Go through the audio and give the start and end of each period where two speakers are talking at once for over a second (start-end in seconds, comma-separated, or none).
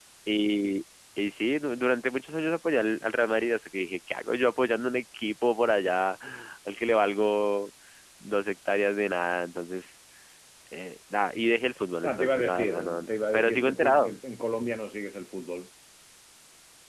12.0-14.1